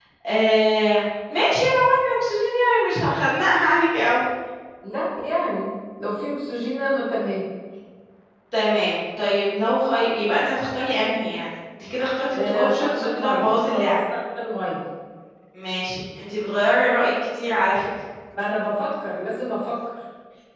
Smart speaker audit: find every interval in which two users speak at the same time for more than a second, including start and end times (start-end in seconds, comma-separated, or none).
12.3-13.9